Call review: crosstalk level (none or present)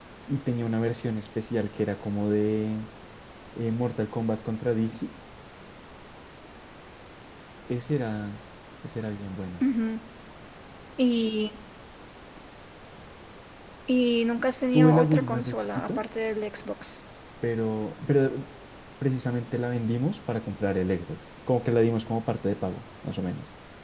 present